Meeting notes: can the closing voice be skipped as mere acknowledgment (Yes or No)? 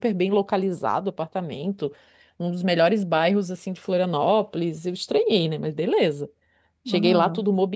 Yes